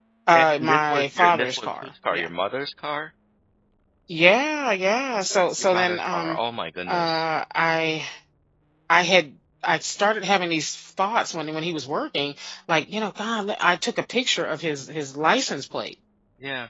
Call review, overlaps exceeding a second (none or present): present